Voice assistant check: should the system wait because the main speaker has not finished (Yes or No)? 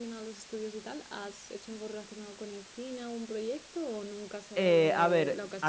No